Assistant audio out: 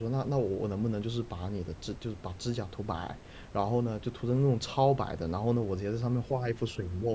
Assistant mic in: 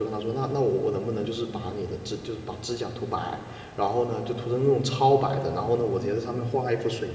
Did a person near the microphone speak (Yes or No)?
No